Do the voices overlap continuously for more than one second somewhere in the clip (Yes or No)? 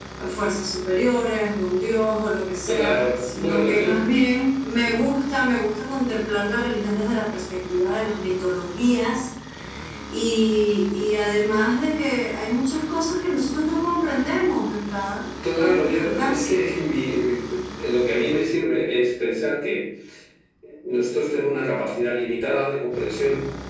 Yes